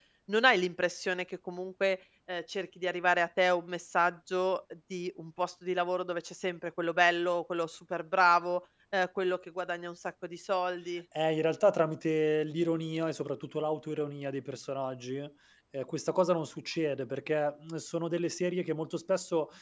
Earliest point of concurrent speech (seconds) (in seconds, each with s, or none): none